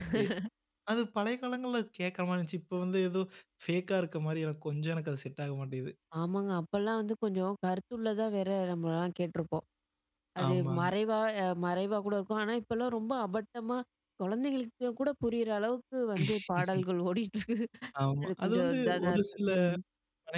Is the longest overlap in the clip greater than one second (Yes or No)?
Yes